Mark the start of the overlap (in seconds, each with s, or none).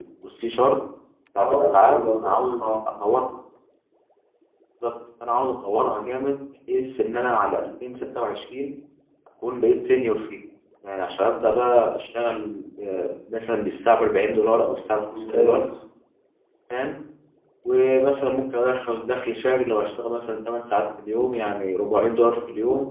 1.4 s